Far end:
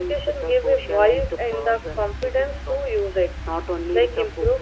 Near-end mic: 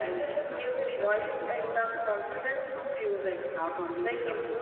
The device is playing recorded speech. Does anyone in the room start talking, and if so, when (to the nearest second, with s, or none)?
none